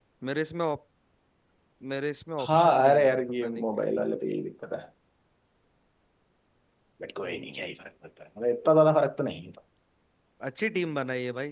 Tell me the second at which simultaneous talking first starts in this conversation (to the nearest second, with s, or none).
2 s